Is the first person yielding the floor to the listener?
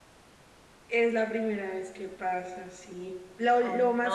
No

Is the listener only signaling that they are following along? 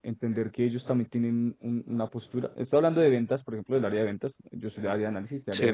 Yes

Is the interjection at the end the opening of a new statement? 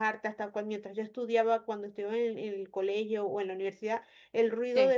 No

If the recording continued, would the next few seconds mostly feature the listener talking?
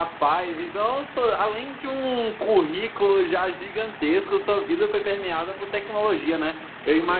No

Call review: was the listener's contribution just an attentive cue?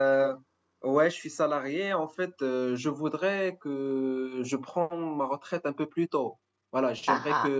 Yes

